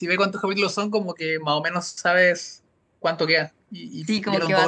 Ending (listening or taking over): taking over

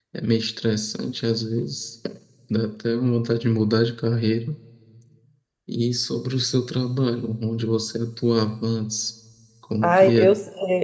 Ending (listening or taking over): taking over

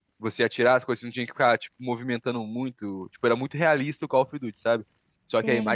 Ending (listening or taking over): listening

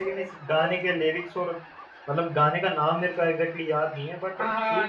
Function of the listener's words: taking over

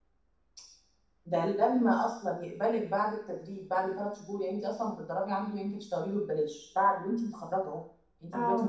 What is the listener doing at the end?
listening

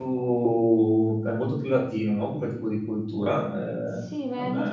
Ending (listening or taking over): taking over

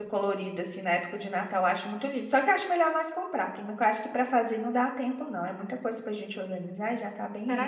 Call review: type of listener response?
taking over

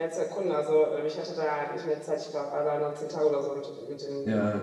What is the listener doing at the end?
taking over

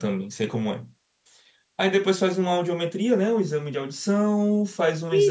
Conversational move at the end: listening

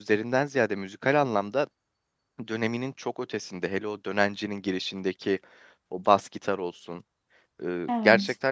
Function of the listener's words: listening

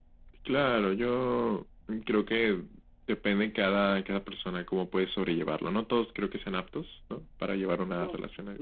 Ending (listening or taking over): taking over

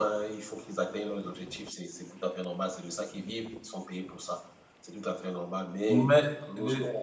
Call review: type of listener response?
taking over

